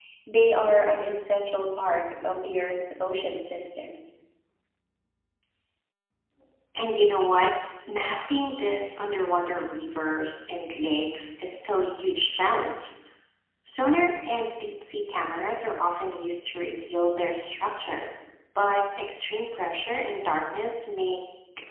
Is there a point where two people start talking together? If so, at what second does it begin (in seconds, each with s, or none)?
none